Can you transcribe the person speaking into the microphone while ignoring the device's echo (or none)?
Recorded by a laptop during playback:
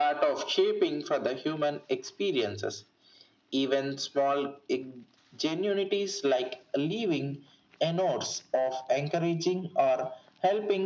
none